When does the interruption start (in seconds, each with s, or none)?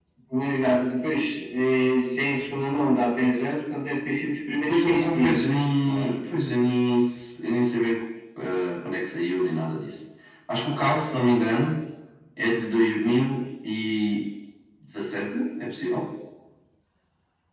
4.7 s